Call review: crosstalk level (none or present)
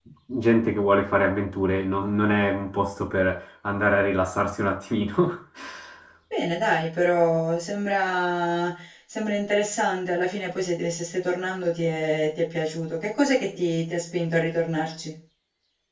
none